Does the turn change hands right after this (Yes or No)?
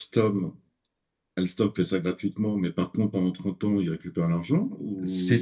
Yes